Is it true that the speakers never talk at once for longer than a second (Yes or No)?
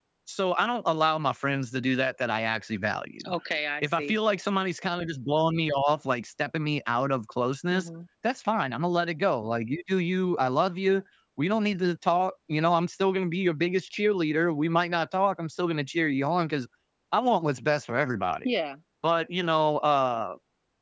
Yes